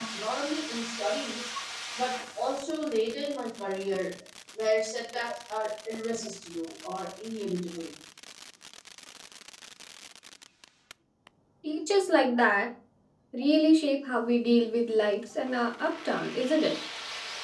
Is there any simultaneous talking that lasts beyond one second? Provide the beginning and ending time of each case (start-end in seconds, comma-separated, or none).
none